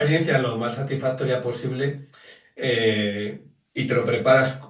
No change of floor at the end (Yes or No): Yes